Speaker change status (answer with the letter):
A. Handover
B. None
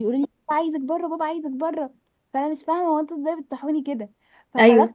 B